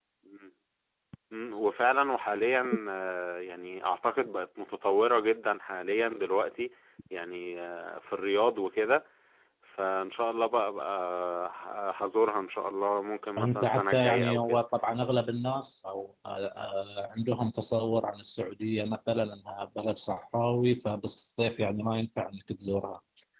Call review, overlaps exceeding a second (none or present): present